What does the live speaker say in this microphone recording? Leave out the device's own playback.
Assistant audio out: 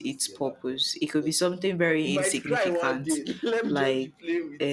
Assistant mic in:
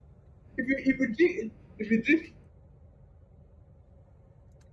If you if you drink if you drink

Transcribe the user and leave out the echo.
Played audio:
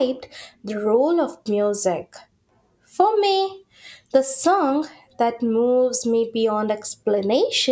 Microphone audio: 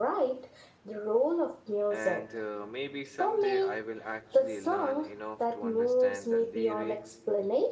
And uh, maybe someday I will actually learn enough to understand the lyrics

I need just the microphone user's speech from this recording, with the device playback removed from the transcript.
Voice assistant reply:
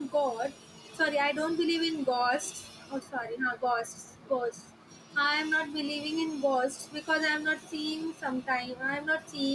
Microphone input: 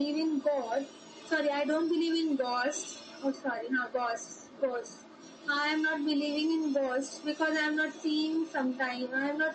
none

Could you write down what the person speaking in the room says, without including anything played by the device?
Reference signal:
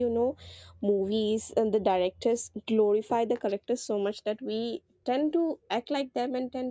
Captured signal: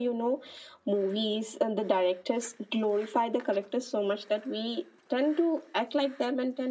none

